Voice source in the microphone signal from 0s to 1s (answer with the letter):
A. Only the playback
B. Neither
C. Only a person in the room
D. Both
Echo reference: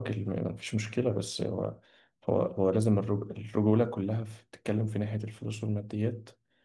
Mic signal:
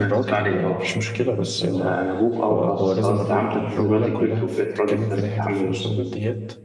D